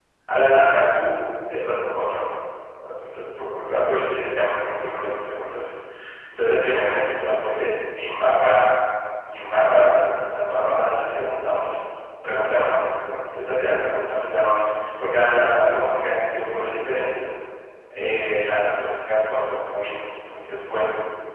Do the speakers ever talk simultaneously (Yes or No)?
No